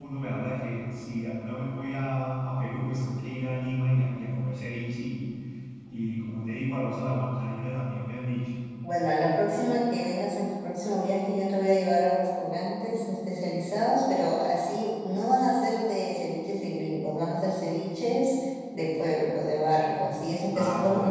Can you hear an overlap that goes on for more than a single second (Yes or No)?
No